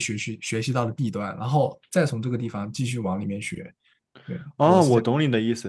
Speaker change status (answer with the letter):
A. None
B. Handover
B